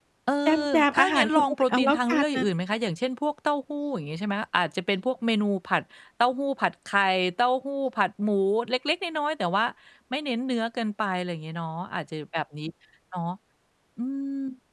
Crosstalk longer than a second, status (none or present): present